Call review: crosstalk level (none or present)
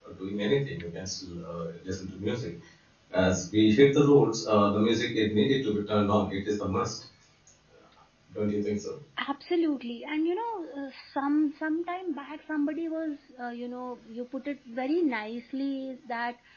none